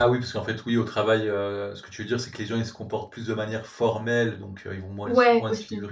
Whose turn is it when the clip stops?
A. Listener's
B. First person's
B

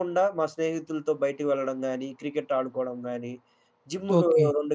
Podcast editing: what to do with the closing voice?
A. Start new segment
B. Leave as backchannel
B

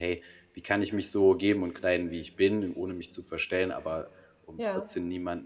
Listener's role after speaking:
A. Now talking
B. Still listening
B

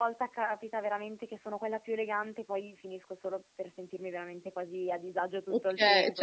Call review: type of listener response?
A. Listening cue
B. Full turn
B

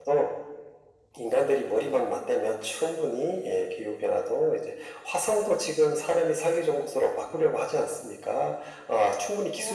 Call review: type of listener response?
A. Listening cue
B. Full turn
B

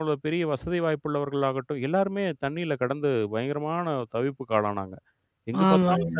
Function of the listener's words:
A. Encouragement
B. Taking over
A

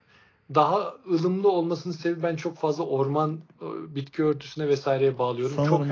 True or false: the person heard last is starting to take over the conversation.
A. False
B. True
B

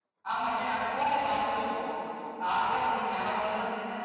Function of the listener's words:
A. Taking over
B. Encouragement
B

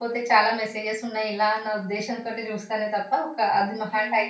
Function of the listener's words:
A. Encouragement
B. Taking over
A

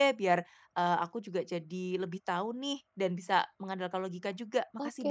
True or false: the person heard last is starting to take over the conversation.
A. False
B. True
B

